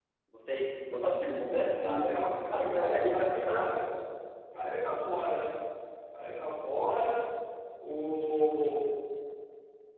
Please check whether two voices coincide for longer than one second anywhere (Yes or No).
Yes